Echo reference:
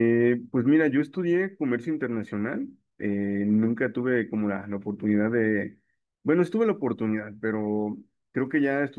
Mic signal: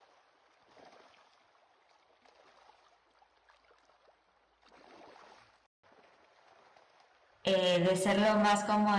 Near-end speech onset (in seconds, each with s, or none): 7.4 s